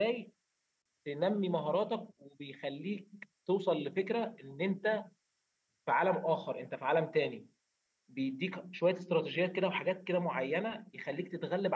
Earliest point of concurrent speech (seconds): none

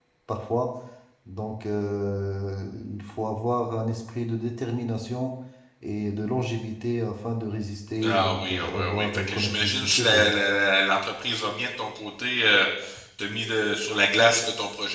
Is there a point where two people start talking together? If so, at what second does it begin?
8 s

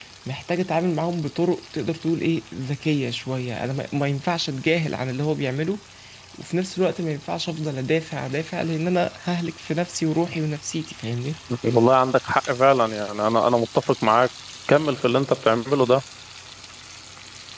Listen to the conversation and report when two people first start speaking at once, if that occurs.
none

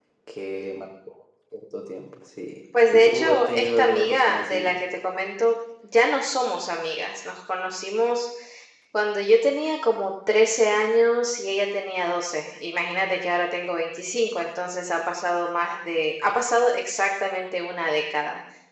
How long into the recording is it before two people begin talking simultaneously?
3 s

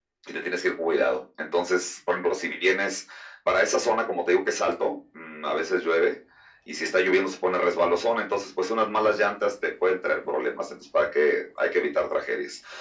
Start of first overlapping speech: none

